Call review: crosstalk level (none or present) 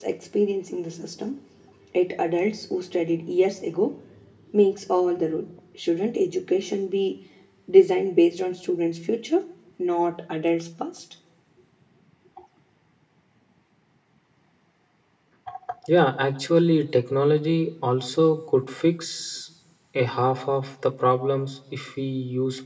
none